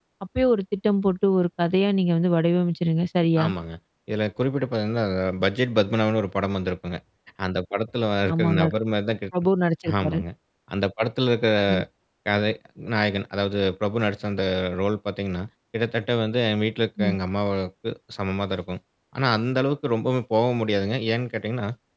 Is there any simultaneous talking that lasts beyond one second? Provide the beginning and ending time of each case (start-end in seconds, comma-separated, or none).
none